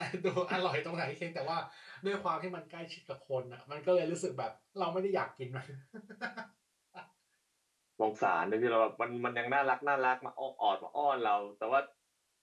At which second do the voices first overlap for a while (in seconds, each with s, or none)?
none